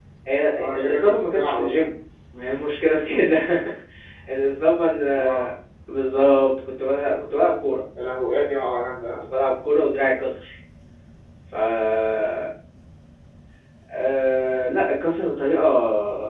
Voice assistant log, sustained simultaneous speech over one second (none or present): present